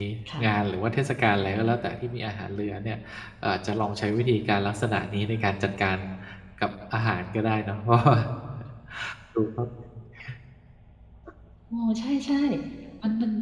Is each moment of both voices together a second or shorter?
Yes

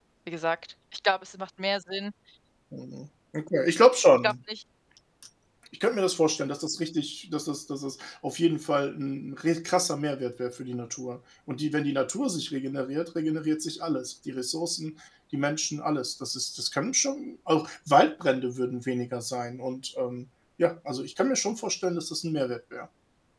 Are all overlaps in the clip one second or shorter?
Yes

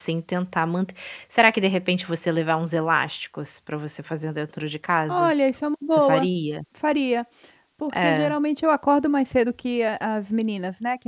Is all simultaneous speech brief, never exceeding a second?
Yes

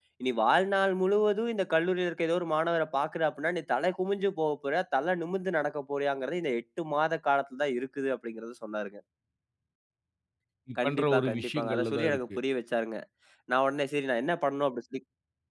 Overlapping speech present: Yes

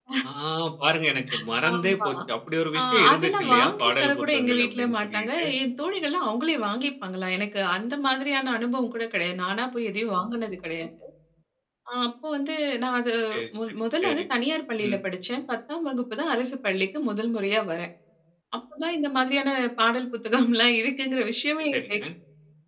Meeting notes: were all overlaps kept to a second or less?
No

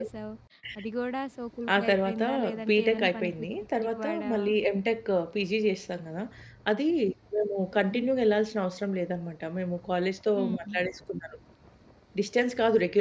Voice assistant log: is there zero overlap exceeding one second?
No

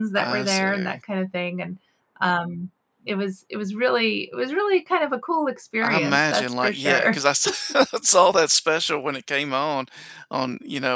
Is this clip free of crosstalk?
No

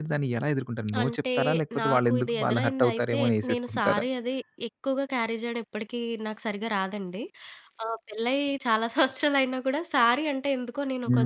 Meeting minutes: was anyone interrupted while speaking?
Yes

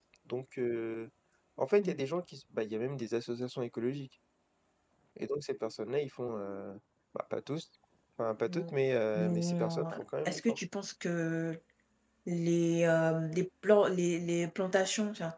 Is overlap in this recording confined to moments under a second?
No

